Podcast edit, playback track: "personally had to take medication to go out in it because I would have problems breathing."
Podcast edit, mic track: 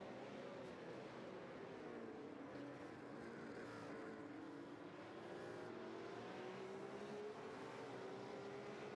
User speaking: No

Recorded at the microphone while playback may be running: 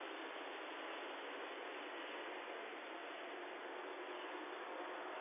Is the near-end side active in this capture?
No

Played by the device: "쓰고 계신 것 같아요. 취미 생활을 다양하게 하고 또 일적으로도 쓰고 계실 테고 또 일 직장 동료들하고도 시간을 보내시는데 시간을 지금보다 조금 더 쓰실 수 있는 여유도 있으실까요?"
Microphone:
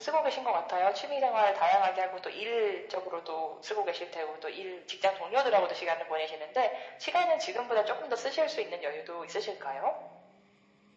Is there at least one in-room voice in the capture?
No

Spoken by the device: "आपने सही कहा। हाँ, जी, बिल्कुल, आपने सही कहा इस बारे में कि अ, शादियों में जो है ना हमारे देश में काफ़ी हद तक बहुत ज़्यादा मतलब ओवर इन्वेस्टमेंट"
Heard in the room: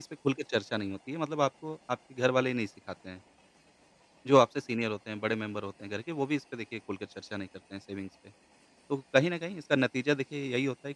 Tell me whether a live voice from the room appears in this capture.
Yes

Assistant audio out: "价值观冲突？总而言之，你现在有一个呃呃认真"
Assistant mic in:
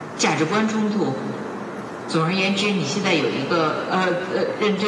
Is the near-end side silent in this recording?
Yes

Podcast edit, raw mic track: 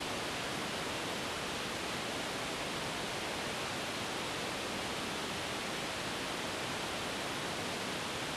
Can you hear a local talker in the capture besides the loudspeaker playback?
No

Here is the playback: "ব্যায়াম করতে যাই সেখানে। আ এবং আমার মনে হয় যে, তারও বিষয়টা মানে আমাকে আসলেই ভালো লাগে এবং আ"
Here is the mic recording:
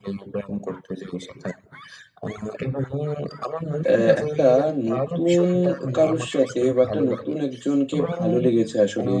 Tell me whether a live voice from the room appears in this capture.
Yes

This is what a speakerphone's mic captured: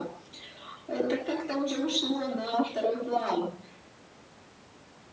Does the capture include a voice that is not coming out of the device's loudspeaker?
No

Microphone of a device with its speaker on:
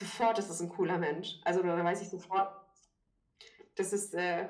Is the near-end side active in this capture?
No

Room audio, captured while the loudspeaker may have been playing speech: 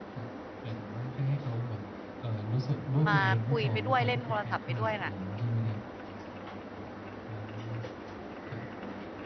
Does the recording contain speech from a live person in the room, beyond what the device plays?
Yes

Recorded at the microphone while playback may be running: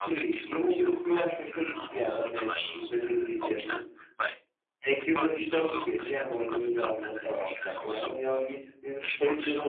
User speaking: Yes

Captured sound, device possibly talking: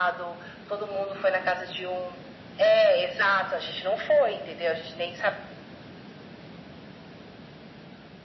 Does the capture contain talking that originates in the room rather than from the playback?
No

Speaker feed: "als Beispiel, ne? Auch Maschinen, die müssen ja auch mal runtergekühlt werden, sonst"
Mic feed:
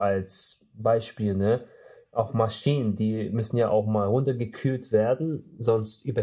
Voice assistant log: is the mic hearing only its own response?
Yes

